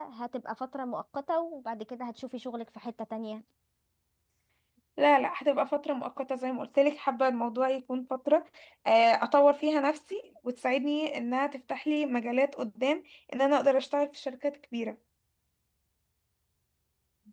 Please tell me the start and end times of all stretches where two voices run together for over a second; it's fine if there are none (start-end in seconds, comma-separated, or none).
none